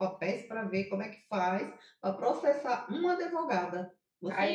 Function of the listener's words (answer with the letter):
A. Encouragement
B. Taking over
B